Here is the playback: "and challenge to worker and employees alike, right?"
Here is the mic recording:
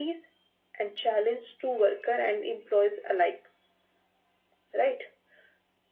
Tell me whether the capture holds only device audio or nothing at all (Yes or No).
Yes